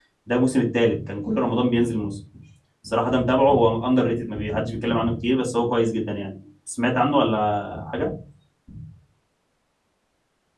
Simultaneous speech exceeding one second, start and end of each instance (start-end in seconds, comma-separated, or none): none